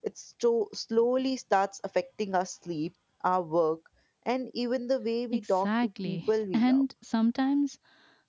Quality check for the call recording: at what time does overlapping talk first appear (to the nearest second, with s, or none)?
5 s